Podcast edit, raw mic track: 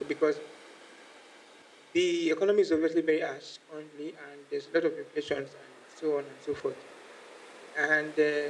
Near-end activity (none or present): none